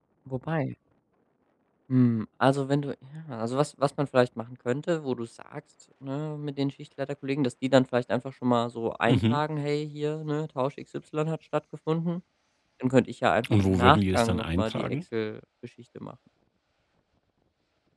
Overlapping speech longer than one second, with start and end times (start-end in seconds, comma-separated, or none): 13.5-15.0